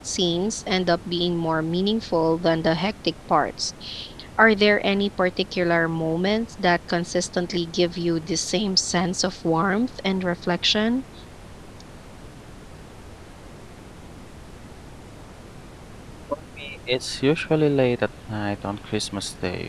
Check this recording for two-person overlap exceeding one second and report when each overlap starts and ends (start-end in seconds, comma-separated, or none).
none